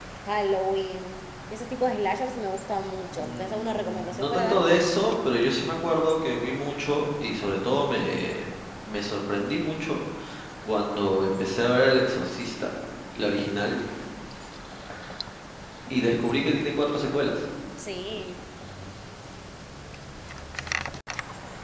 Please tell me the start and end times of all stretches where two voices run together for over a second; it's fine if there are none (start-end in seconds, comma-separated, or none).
3.1-4.9